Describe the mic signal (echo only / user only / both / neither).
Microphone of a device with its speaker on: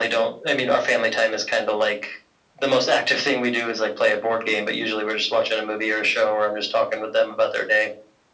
echo only